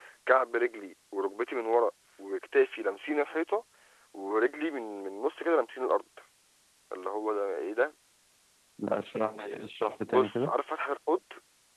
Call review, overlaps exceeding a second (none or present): none